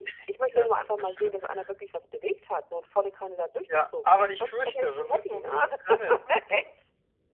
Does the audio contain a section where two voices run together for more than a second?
Yes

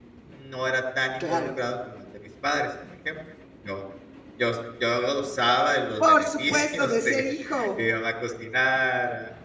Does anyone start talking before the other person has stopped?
Yes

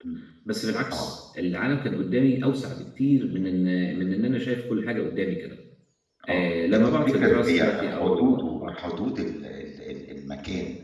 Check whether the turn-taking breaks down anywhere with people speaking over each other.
Yes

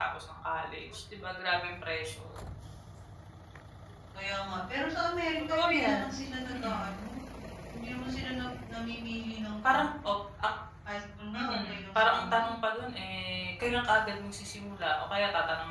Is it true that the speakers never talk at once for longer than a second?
No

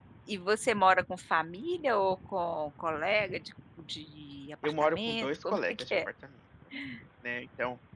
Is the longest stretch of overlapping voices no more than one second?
No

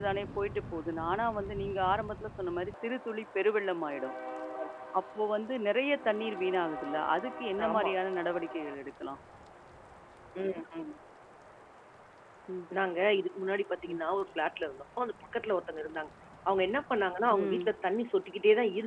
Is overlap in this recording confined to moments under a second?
Yes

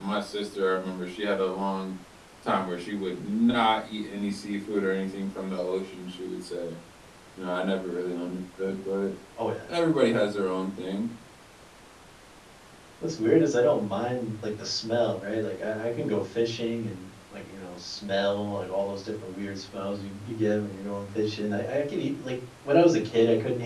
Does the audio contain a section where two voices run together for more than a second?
No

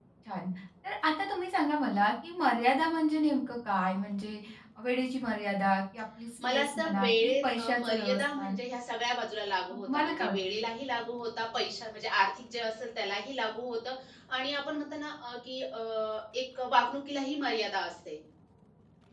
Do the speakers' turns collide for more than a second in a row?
Yes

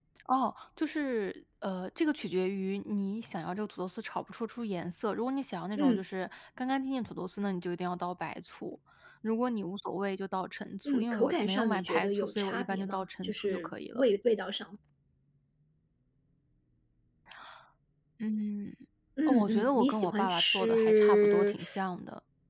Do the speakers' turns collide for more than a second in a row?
Yes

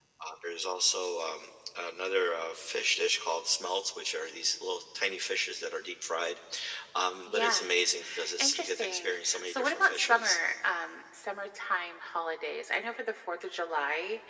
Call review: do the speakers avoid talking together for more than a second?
No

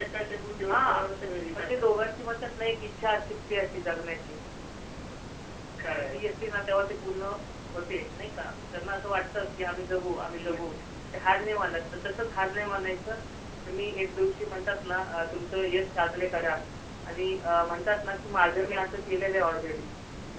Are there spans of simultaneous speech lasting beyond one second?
No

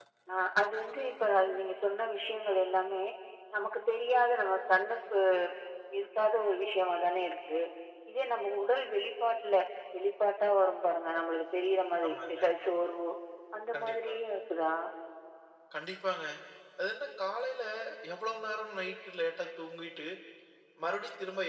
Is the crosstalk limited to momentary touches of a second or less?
Yes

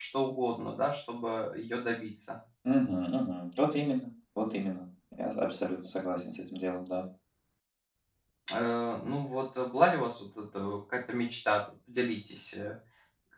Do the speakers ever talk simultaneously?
No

